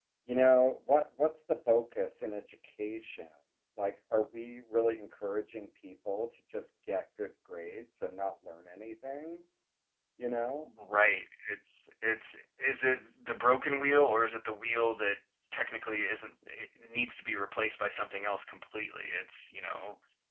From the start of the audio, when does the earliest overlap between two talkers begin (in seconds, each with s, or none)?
none